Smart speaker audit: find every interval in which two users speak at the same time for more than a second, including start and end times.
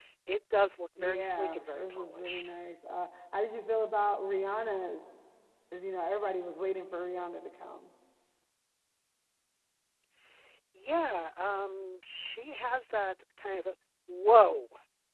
1.0-2.5

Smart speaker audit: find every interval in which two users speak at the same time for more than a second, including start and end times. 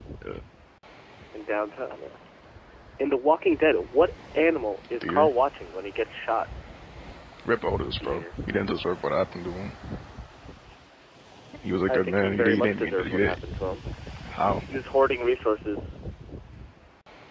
11.9-13.4

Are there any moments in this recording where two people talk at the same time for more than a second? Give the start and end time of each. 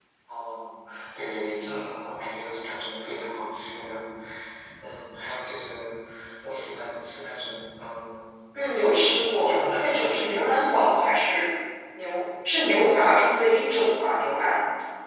9.4-11.1

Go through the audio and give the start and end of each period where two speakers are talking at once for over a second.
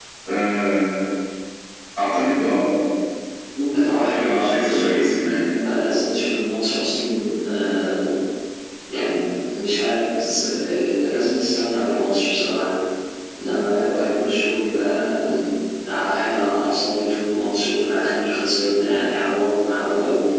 3.9-5.1

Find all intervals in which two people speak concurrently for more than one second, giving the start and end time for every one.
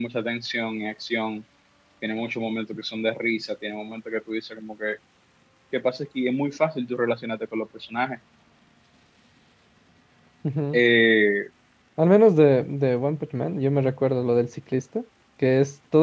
none

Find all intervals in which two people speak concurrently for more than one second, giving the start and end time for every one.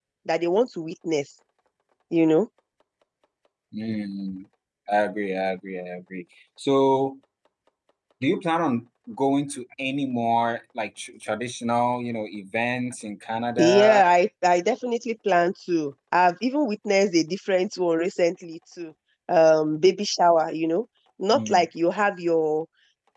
none

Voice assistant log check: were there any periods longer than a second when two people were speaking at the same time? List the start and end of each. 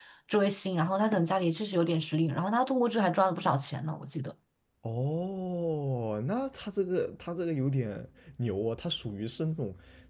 none

